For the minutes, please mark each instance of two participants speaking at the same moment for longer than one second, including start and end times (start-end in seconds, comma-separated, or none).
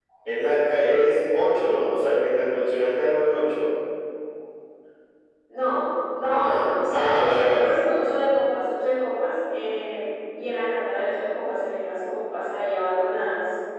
6.4-7.7